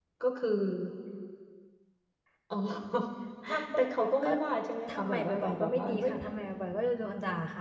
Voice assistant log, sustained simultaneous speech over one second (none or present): present